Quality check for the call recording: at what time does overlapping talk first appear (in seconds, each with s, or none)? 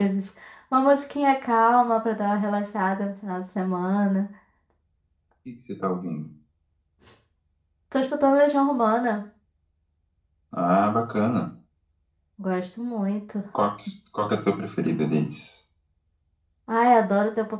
none